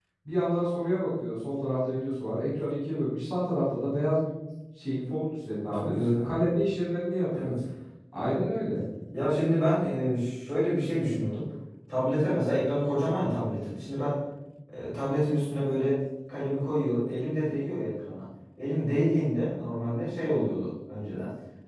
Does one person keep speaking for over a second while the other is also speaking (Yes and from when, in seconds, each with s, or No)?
No